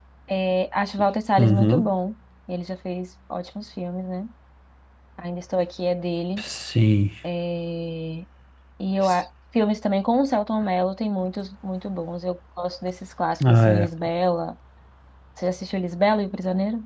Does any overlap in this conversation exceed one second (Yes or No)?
No